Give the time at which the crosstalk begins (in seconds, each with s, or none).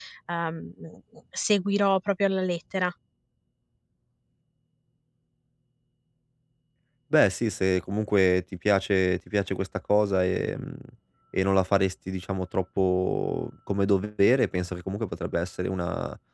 none